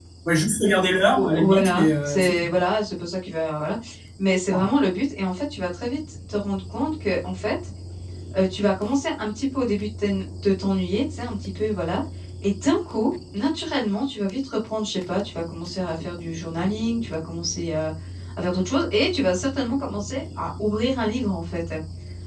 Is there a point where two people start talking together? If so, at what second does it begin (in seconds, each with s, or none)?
1.1 s